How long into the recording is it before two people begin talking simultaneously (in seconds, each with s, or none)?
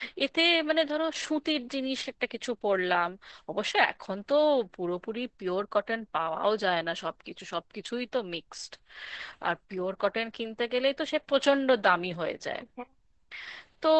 none